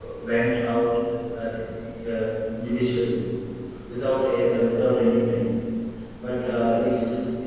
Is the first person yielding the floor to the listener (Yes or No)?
No